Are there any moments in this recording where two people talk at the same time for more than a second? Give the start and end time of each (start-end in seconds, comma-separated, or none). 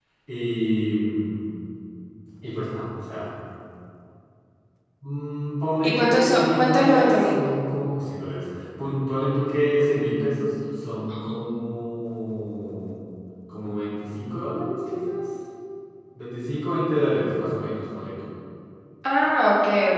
5.8-7.4